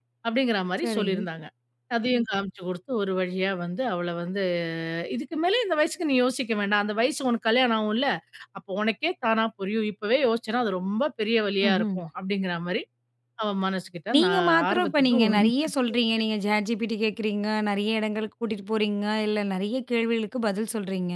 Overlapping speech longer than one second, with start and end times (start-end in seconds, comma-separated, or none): 14.2-15.4